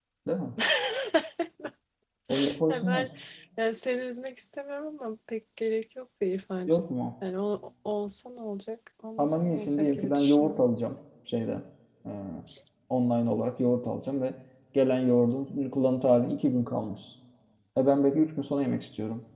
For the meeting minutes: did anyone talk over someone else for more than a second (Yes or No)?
Yes